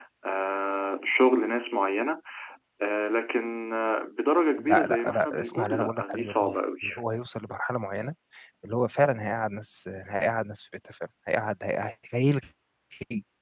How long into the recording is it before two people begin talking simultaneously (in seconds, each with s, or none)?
4.6 s